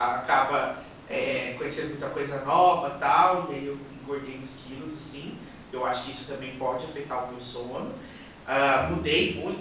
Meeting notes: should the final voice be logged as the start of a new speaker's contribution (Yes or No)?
No